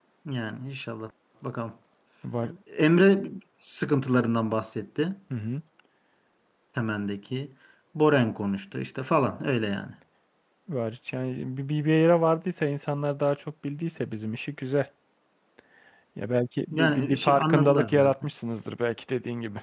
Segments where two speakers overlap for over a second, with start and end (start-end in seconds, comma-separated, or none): 16.7-18.1